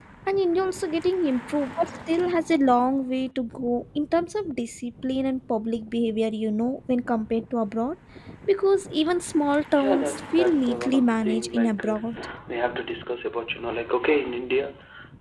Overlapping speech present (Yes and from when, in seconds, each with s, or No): Yes, from 9.7 s